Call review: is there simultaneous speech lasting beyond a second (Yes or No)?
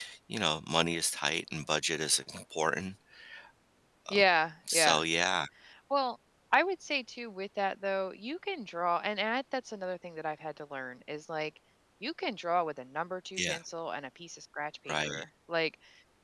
No